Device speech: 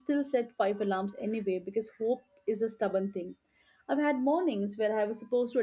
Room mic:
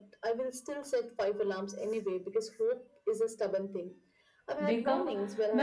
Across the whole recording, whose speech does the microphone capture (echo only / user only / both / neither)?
both